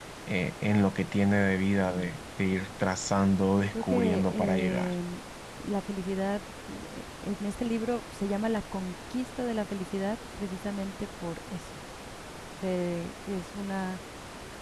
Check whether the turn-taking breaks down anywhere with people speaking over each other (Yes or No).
Yes